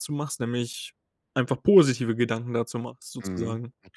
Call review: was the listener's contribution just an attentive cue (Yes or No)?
No